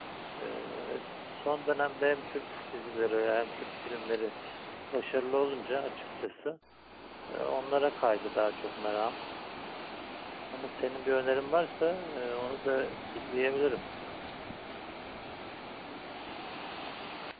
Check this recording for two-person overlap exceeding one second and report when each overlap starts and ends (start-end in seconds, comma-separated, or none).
none